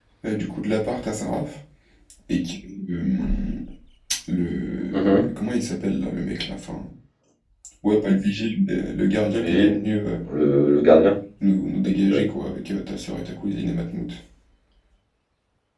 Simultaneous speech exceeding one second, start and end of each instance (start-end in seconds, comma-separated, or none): none